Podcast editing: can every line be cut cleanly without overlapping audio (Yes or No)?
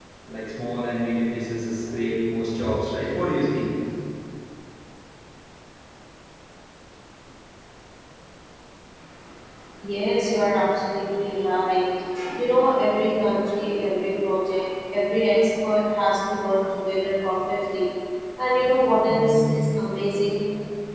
Yes